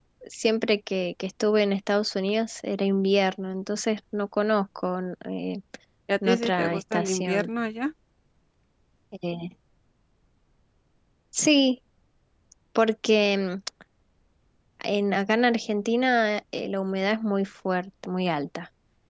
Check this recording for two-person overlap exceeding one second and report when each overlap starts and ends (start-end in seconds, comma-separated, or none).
6.2-7.5